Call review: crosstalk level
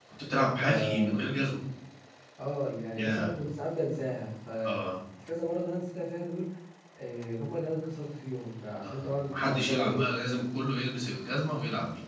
present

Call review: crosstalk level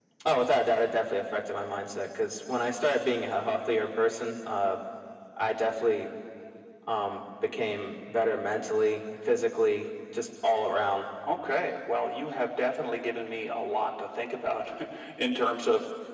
none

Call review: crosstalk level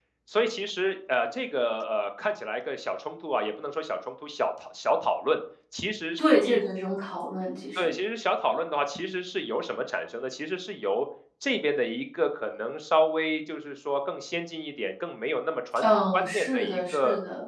present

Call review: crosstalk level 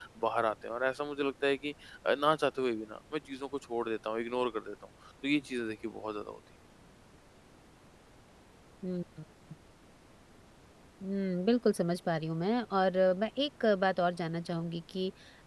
none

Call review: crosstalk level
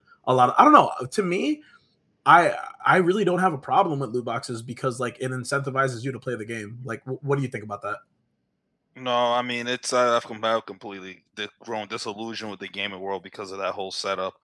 none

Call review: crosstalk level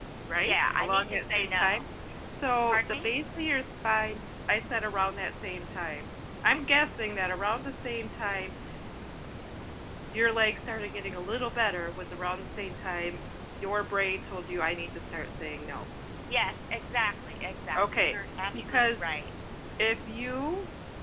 present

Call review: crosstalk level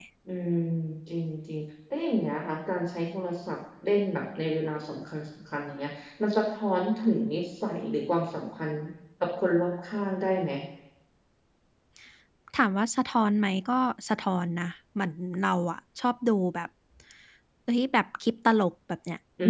none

